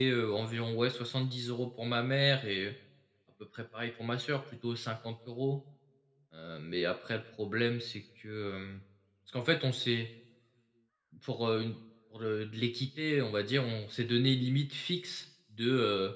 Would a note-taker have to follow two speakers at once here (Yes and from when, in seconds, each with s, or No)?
No